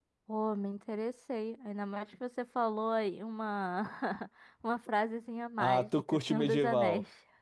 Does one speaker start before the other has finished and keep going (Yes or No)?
Yes